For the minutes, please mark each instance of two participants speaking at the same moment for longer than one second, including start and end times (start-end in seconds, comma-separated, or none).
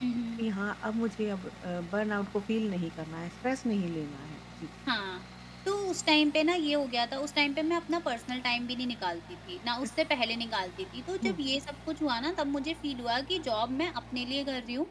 none